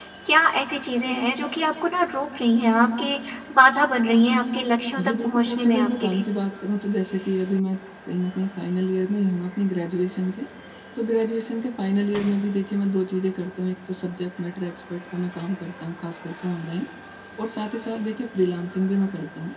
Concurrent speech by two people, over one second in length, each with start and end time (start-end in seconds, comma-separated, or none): 5.0-6.2